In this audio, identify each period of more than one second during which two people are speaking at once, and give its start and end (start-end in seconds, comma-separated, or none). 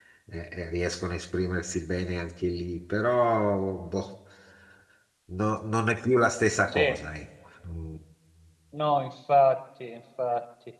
none